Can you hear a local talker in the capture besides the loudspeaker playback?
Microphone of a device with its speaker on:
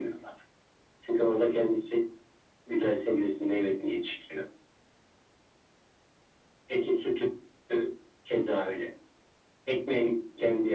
No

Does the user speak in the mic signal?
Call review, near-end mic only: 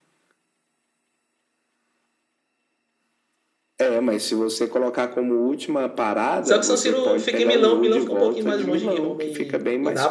Yes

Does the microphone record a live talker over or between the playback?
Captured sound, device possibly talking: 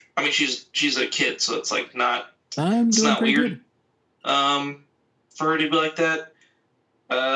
Yes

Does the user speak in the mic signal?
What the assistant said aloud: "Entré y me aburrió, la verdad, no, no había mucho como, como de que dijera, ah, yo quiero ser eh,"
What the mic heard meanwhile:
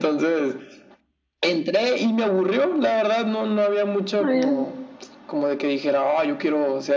Yes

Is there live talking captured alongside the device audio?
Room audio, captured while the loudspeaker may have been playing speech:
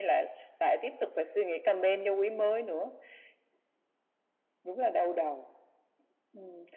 No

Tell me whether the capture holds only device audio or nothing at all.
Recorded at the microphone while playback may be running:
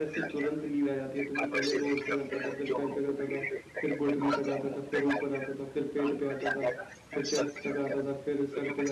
No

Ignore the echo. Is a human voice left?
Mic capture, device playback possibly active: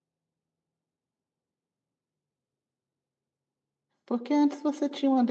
Yes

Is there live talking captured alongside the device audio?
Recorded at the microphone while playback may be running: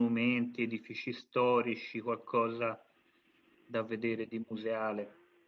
Yes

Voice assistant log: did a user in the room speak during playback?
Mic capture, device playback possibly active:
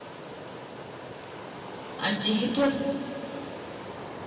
Yes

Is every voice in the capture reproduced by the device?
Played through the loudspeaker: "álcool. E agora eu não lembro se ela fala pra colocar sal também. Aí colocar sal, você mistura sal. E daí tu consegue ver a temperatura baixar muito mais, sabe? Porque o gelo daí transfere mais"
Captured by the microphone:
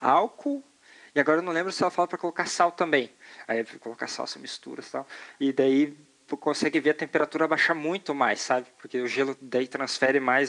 Yes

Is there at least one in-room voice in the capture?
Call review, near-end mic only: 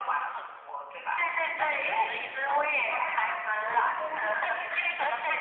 Yes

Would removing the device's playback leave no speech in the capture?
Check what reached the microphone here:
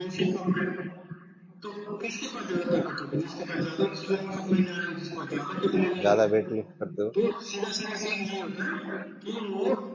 No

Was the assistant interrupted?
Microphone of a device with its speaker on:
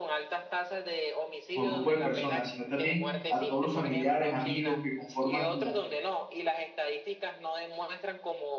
Yes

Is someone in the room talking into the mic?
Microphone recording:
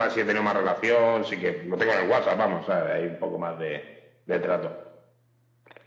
No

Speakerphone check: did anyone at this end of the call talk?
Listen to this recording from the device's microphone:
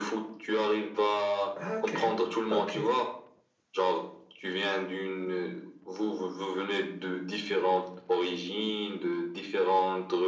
Yes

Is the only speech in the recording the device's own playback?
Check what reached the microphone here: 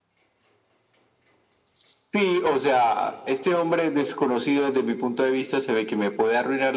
Yes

